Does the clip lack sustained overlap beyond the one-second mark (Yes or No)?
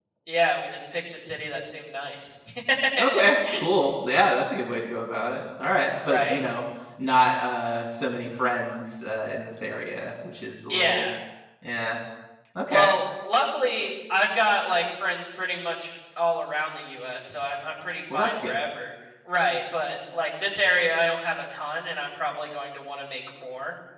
Yes